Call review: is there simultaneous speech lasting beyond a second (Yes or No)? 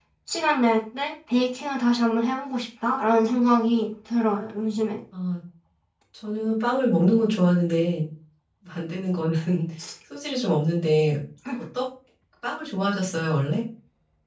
No